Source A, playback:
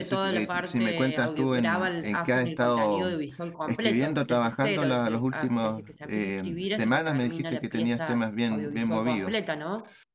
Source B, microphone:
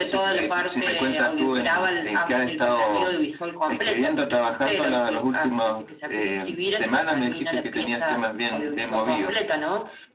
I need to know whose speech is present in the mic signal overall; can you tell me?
echo only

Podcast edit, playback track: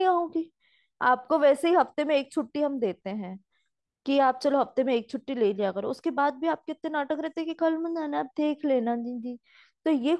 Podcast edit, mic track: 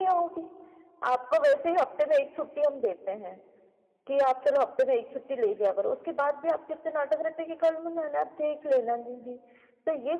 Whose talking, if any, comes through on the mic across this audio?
echo only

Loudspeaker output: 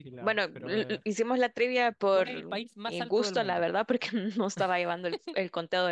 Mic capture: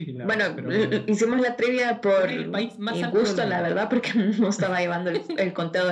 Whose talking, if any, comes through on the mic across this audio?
echo only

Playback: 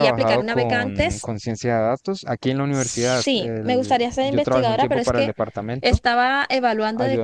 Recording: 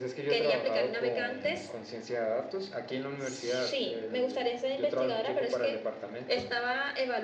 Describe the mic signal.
echo only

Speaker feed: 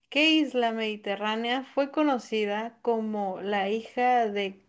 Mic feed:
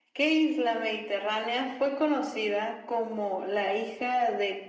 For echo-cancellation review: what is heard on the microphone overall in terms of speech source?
echo only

